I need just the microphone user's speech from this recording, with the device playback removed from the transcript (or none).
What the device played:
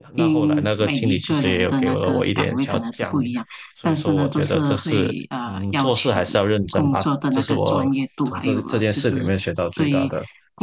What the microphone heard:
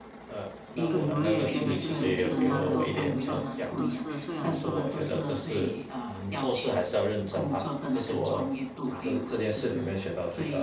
对，我也觉得就是，其实蛮多工作呢，都是虽然说，